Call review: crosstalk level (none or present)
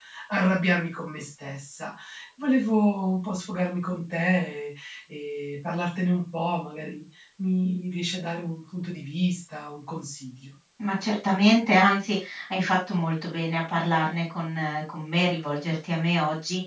none